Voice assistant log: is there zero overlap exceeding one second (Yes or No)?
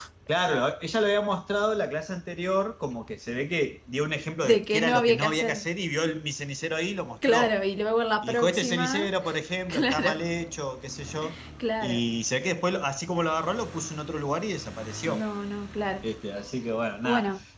No